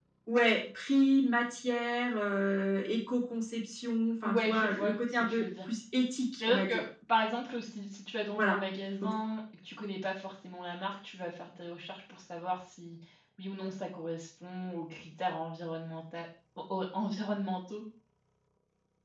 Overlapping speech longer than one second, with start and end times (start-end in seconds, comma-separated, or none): 4.2-5.5